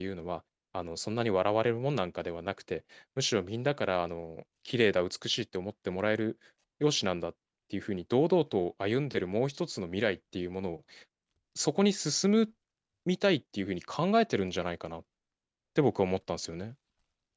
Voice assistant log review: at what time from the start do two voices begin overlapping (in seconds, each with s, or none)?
none